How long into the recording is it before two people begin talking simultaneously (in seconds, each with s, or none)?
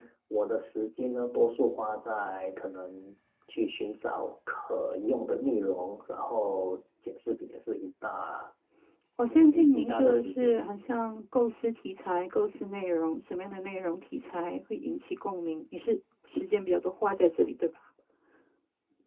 9.3 s